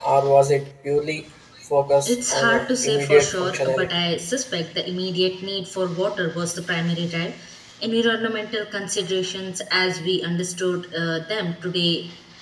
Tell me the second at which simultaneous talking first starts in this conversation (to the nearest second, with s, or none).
2 s